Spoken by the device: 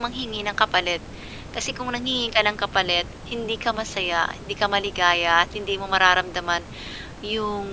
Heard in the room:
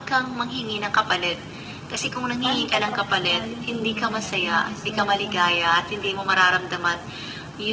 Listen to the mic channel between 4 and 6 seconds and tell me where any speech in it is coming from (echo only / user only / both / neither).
both